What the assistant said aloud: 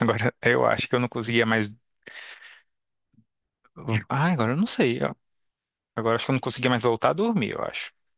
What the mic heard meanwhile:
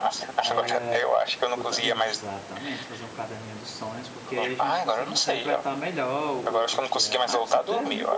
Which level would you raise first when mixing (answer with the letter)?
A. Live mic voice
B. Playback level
A